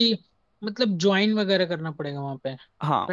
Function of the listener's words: taking over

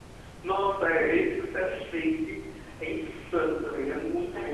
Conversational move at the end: listening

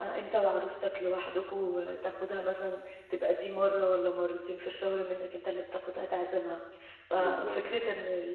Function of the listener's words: listening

